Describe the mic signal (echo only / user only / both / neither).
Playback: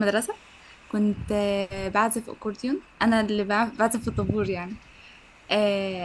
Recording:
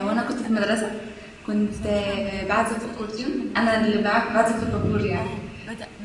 both